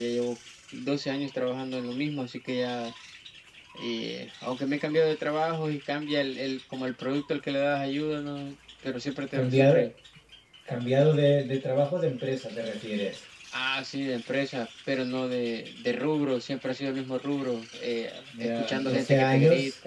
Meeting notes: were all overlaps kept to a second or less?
No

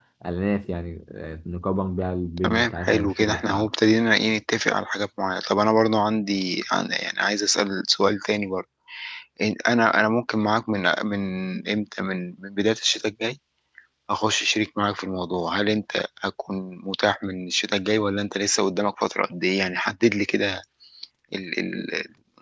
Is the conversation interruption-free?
No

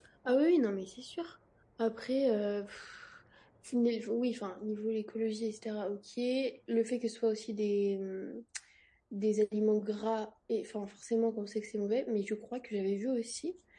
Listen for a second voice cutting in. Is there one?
No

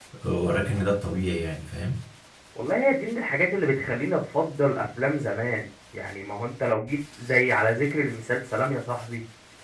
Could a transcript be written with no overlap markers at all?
Yes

